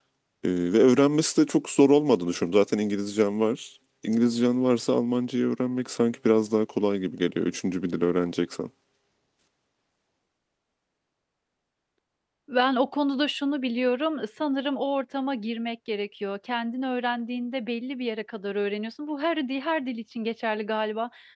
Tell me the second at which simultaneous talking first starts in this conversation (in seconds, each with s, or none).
none